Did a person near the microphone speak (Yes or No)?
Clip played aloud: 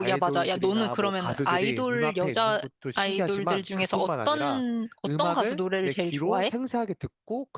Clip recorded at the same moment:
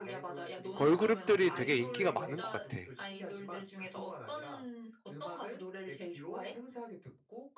Yes